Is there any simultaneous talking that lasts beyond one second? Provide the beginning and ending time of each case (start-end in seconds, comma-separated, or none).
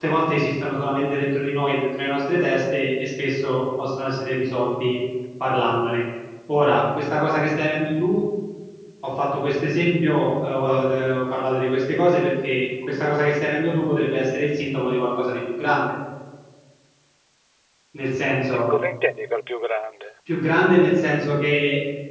none